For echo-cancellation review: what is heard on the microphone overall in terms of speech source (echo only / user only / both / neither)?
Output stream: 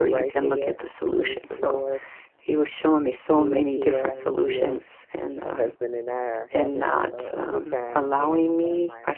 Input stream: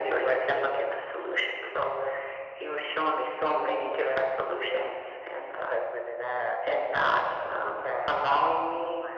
echo only